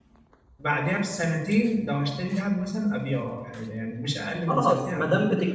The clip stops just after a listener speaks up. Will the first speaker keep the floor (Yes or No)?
No